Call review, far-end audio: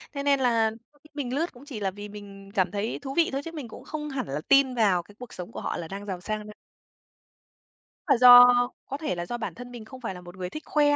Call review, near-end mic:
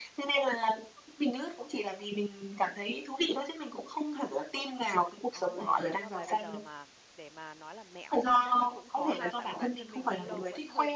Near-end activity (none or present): present